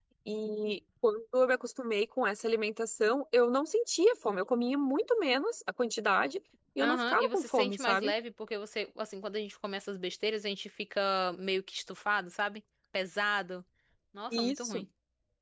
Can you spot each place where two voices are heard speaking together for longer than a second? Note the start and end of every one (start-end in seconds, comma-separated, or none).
6.8-8.1